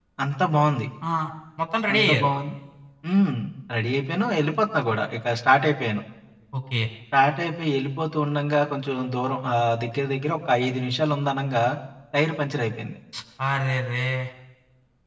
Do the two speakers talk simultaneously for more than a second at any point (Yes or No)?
No